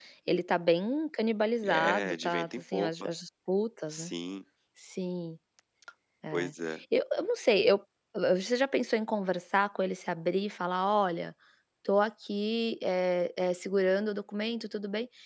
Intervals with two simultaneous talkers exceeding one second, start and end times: 1.6-3.1

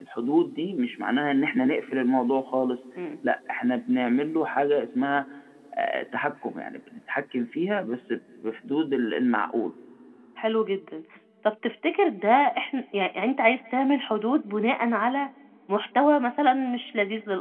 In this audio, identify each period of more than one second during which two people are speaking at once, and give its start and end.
none

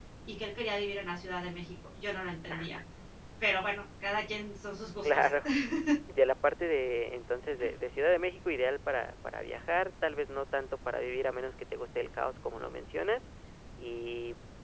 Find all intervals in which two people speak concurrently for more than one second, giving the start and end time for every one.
none

